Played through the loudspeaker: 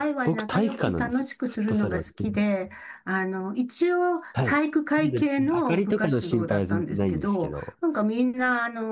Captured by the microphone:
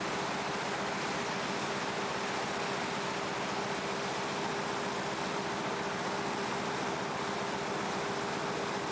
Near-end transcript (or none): none